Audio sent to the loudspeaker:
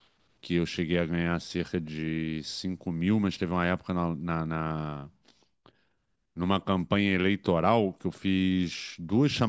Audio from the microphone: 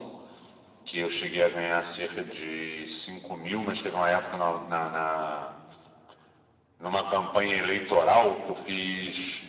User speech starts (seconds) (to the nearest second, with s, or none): none